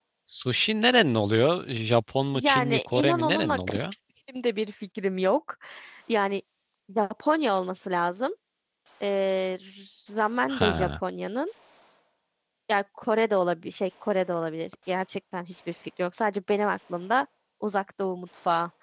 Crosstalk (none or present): present